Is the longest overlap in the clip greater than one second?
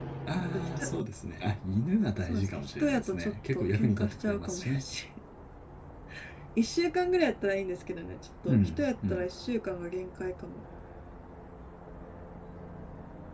Yes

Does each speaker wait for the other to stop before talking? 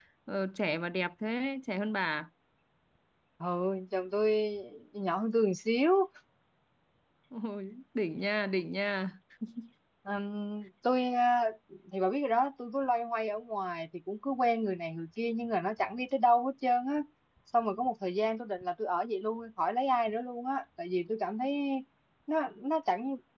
Yes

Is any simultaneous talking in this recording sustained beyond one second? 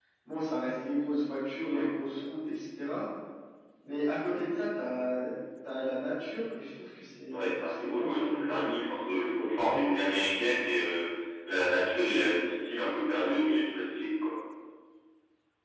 Yes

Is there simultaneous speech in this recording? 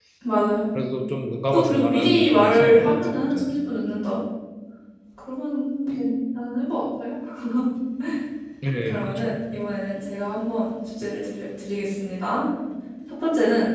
Yes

